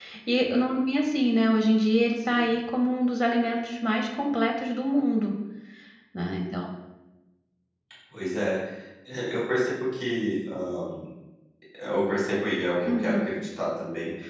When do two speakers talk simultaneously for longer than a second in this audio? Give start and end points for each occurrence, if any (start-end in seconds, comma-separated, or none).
none